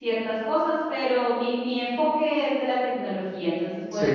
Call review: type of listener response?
taking over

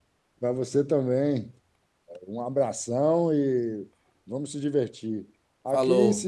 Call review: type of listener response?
listening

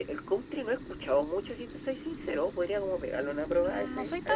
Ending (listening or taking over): taking over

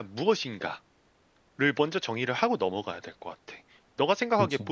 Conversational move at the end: listening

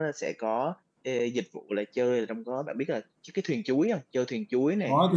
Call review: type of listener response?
taking over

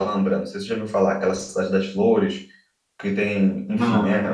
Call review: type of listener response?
listening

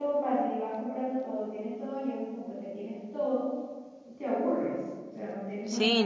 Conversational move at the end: taking over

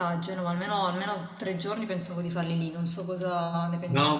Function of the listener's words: taking over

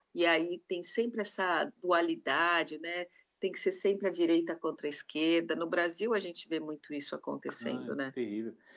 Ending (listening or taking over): taking over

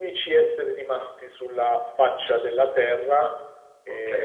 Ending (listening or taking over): taking over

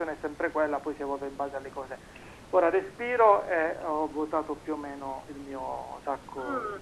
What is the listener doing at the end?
taking over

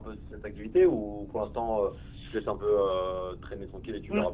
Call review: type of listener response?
taking over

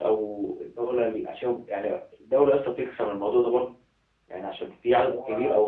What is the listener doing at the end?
listening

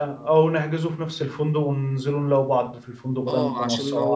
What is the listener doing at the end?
taking over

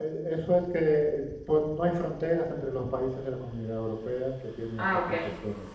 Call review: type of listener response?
listening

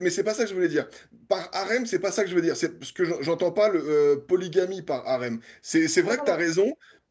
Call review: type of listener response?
listening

